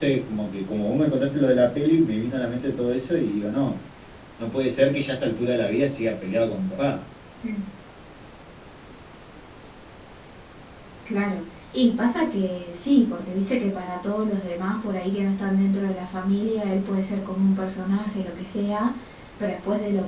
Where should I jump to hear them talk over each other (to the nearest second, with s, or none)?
none